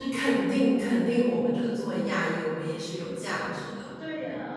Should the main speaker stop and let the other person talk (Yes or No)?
Yes